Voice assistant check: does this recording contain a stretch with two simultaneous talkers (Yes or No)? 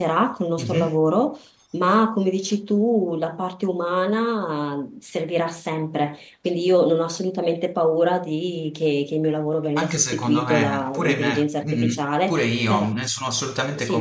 Yes